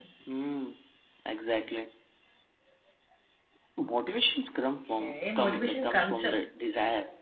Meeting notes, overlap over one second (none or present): present